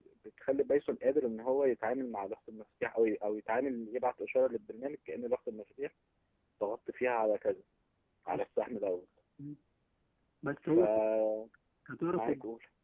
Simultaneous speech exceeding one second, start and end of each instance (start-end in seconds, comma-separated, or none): none